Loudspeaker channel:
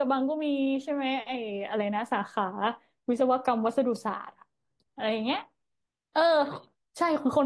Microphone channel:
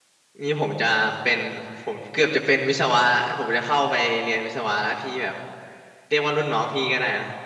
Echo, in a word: none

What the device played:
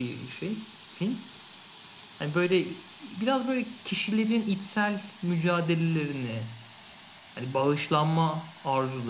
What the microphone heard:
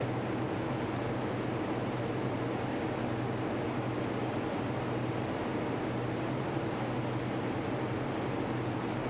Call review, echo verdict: none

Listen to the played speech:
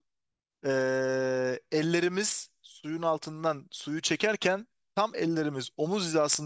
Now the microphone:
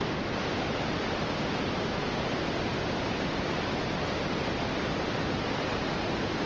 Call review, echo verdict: none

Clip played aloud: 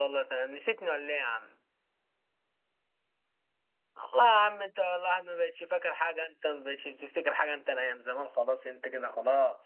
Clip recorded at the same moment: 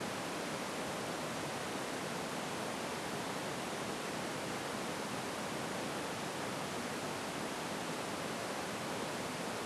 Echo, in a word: none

